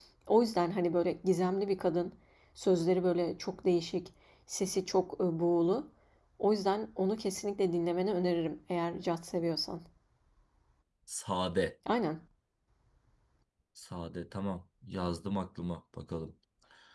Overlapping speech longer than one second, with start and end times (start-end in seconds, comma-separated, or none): none